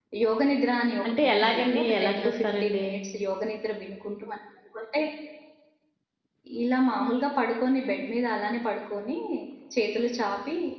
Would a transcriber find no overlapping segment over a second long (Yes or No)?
No